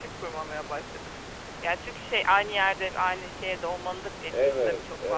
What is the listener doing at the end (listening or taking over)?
taking over